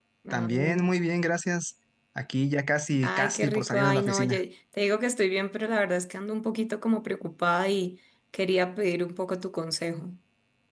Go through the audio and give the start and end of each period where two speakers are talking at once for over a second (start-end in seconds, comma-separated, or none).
3.0-4.4